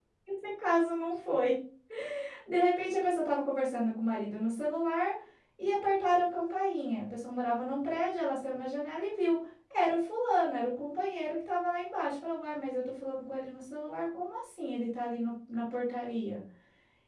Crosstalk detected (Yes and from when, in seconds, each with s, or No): No